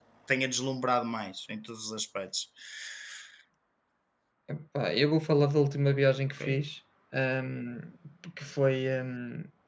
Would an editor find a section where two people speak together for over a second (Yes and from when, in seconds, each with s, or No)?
No